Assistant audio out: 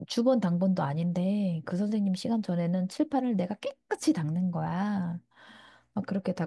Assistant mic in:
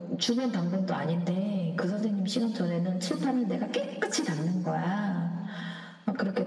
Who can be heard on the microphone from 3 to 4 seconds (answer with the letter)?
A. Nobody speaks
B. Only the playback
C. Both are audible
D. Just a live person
B